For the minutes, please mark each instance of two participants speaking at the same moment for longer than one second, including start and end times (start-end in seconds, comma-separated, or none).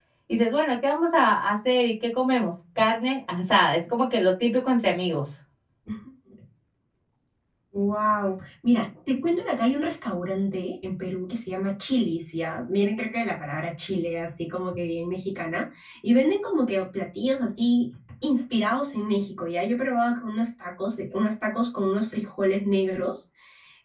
none